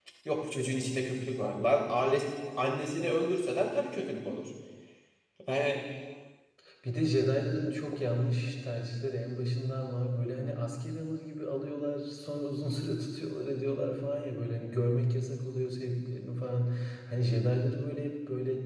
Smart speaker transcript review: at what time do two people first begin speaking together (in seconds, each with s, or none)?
none